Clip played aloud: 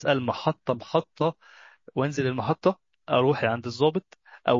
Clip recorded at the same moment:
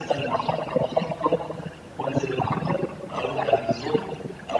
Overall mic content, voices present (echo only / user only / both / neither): echo only